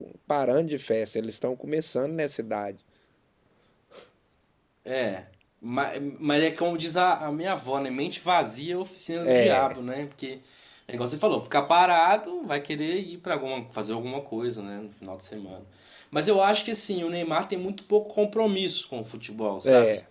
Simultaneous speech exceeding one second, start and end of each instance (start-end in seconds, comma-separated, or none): none